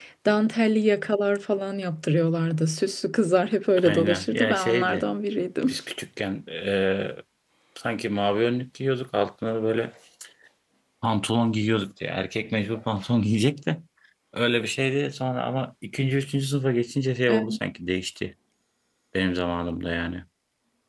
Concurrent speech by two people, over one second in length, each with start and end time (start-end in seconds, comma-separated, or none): 3.8-5.0